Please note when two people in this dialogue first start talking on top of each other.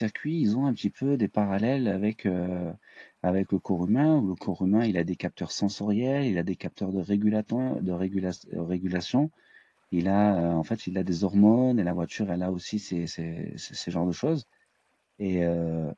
none

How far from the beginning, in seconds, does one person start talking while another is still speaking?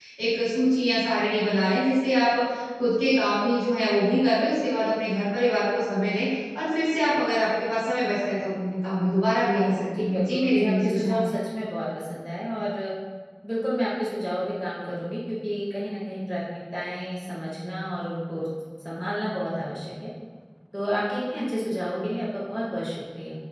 9.5 s

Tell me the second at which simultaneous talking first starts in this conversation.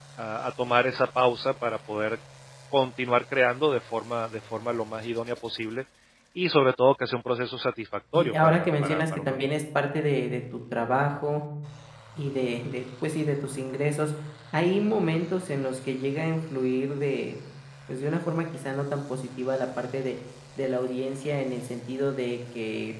8.1 s

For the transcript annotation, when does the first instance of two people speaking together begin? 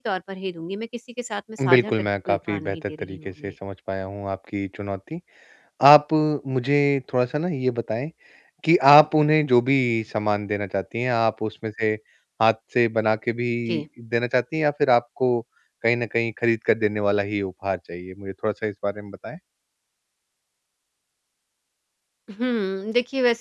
1.6 s

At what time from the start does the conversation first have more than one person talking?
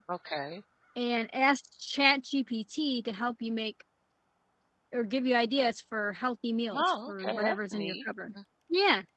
6.7 s

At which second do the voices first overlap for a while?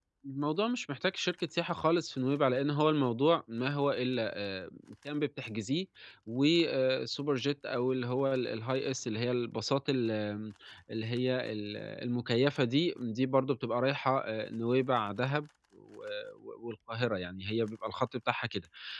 none

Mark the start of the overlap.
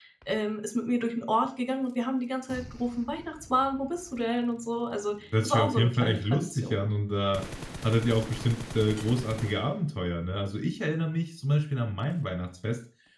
5.3 s

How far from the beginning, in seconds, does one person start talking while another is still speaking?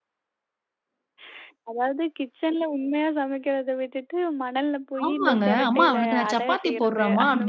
5.0 s

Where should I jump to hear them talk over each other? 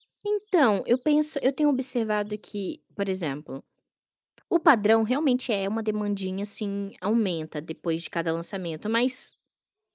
none

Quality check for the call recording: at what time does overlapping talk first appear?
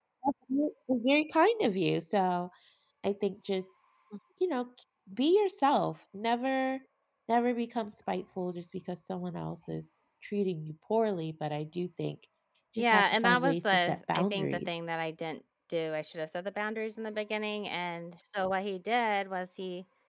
12.8 s

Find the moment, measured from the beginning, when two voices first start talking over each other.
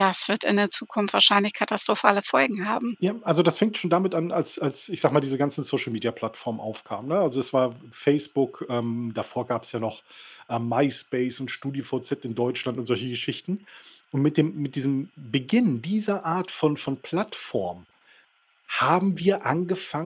none

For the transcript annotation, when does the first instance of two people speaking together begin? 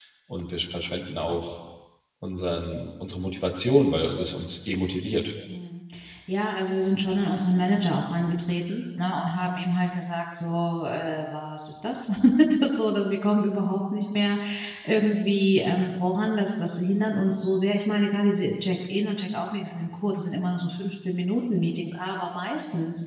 none

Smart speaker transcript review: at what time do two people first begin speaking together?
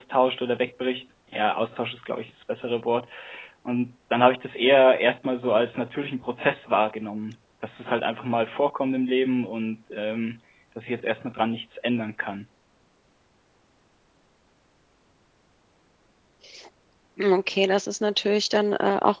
none

